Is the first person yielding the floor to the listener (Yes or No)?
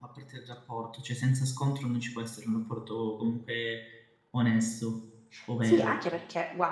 Yes